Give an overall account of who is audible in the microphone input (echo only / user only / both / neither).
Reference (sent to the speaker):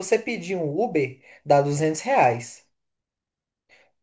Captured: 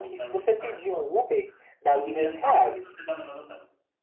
both